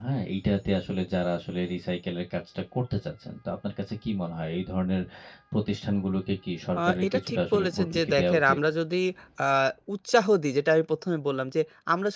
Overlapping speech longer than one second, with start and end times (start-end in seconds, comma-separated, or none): 6.8-8.6